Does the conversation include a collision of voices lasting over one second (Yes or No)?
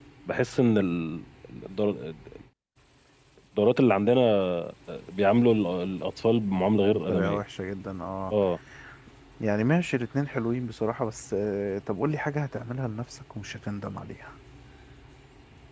No